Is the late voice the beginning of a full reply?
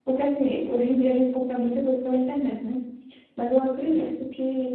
No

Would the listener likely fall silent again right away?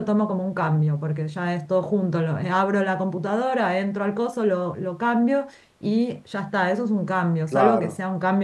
Yes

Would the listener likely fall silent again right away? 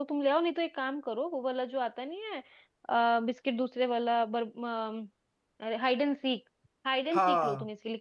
Yes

